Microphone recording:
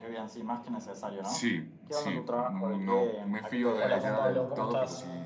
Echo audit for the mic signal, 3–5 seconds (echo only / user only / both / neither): both